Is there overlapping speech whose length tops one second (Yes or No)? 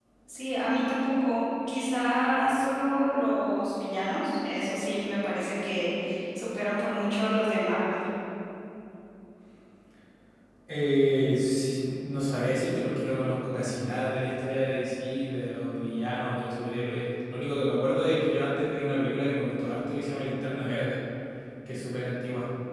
No